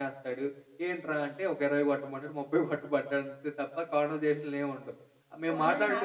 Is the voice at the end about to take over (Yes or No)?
Yes